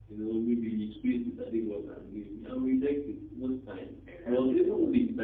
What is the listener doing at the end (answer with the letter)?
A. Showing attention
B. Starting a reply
A